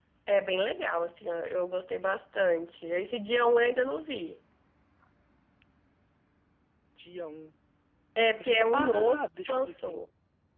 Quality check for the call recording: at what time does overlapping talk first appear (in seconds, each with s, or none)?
8.4 s